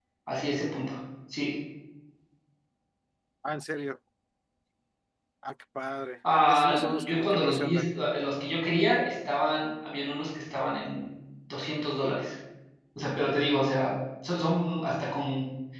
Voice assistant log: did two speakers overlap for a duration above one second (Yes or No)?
Yes